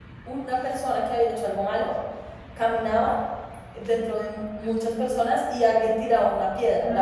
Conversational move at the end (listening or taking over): listening